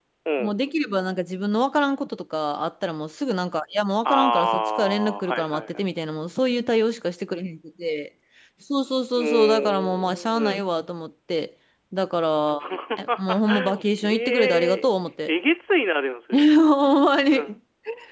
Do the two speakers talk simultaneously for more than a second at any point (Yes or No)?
Yes